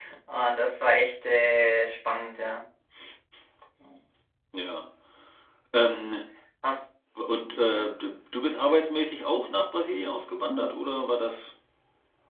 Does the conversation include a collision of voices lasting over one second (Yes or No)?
No